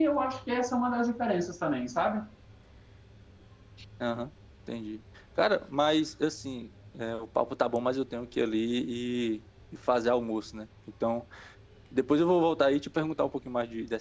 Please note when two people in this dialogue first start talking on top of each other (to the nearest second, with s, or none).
none